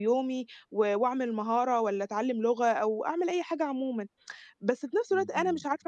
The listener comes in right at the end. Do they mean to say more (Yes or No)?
No